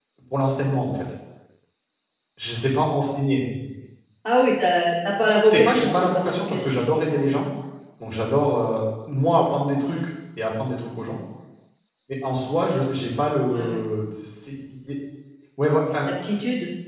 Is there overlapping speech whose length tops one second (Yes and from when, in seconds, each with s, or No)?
Yes, from 5.4 s